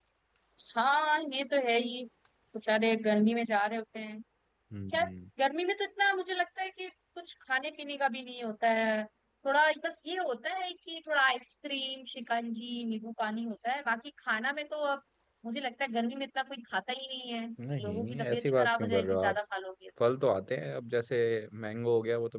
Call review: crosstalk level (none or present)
present